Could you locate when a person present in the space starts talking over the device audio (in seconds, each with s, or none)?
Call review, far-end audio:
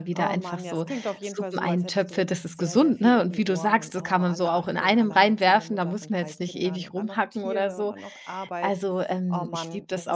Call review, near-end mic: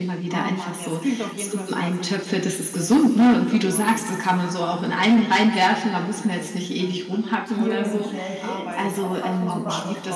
7.5 s